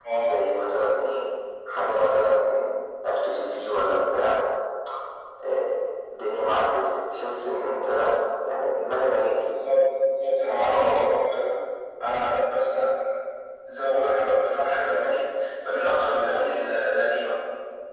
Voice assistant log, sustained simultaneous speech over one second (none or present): none